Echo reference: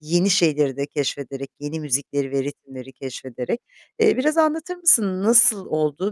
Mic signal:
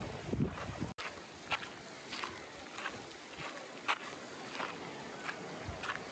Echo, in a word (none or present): none